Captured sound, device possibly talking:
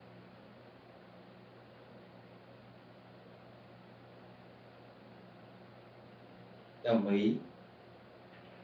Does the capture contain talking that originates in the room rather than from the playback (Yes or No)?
Yes